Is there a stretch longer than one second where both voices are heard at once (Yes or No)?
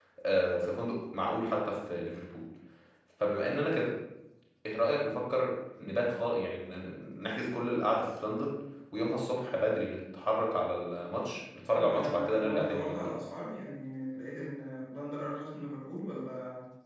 Yes